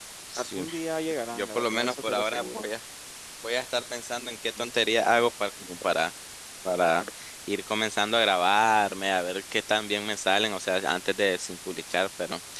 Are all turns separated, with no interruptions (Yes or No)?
No